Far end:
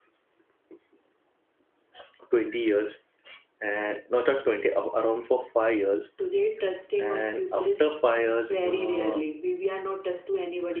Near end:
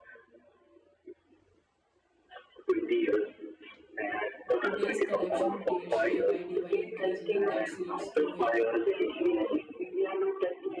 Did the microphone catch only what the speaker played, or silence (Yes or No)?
No